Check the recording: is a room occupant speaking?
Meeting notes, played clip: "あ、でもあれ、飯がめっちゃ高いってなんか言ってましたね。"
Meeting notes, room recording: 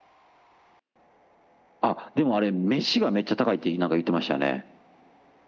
No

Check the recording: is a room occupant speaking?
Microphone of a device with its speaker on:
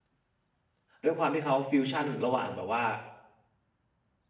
Yes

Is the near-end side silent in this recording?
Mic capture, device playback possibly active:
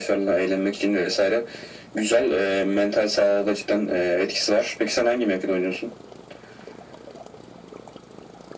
Yes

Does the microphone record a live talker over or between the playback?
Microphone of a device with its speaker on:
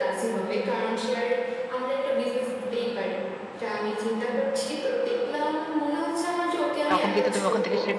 Yes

